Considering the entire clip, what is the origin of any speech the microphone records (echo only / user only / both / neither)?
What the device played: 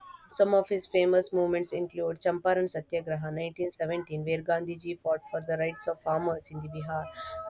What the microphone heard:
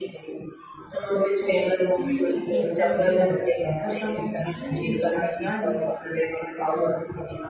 both